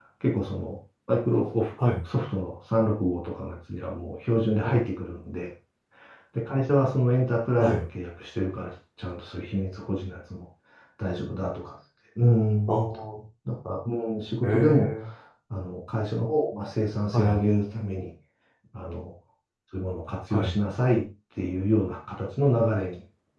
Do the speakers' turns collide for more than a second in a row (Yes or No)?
No